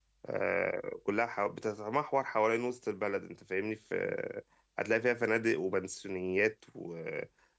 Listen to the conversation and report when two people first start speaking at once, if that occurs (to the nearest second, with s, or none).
none